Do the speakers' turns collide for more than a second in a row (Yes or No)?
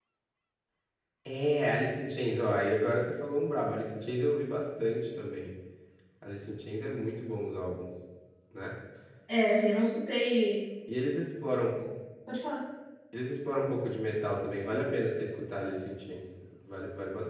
No